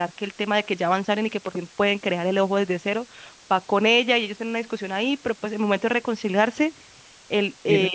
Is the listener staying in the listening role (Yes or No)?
Yes